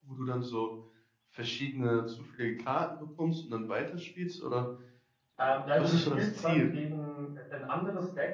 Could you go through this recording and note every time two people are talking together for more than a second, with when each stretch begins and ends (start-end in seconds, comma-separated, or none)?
5.4-6.7